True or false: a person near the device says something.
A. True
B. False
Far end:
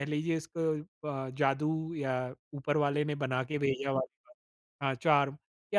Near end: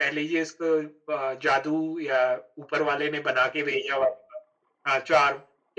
B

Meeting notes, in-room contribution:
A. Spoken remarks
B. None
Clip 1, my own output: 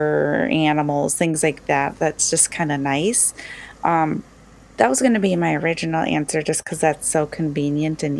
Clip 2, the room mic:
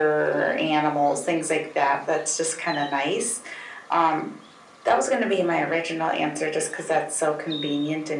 B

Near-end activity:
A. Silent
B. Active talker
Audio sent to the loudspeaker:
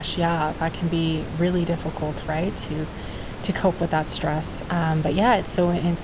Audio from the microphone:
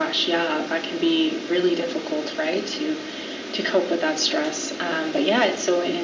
A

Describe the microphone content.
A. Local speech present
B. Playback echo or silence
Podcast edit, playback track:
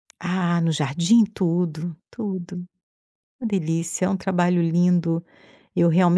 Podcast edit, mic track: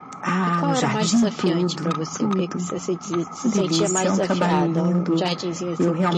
A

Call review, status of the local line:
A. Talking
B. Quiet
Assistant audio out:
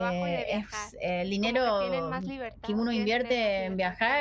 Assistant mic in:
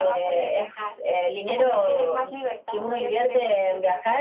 B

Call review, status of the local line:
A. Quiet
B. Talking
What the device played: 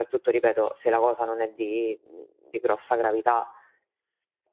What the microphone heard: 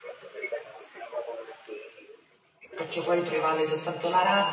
B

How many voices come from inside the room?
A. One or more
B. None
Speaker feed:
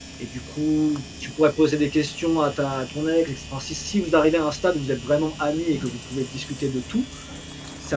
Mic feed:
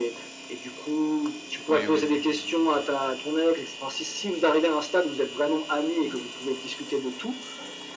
A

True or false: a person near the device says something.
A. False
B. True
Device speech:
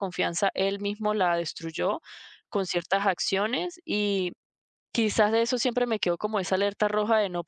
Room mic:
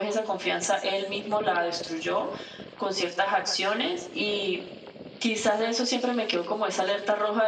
A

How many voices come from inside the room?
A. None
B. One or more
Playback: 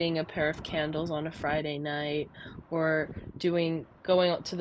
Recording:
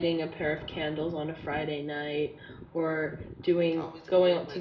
B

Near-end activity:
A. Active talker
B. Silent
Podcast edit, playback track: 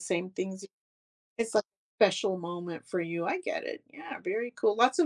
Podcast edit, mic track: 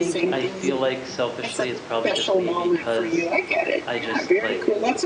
A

